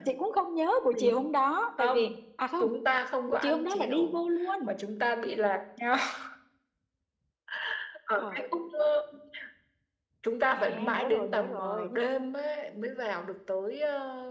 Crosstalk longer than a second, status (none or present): present